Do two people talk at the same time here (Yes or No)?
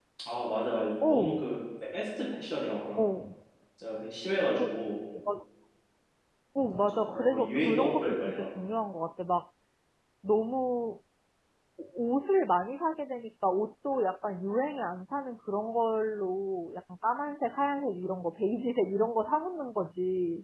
Yes